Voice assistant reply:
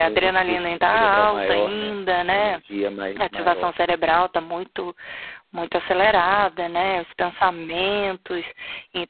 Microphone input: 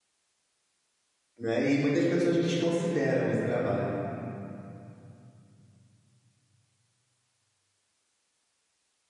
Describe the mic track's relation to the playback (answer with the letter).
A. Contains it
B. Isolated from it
B